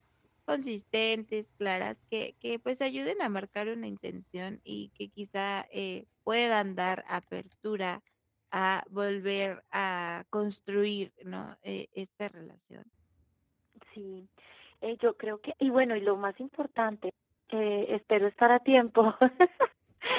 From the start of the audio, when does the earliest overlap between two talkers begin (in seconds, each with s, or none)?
none